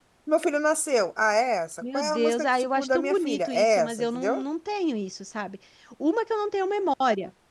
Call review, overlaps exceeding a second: present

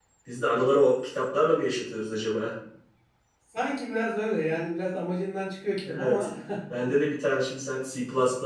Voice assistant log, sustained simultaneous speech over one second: none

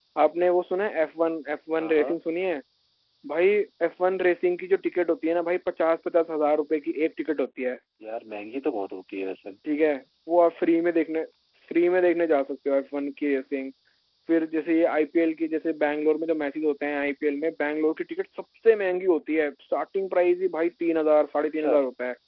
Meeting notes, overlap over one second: none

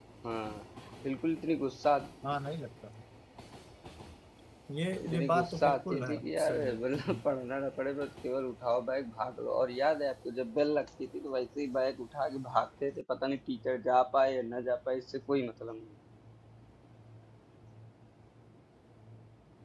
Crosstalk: present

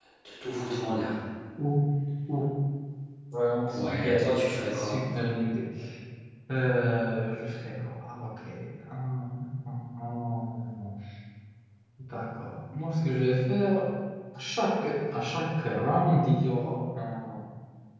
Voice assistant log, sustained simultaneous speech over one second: present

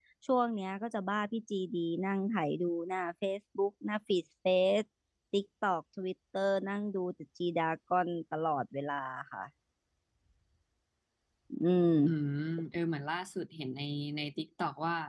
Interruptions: none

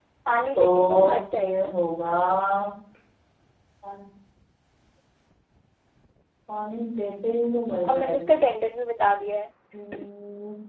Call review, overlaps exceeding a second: present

